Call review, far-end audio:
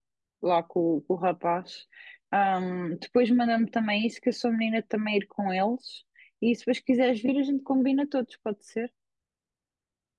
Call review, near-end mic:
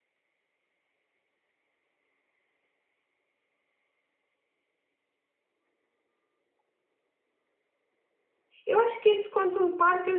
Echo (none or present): none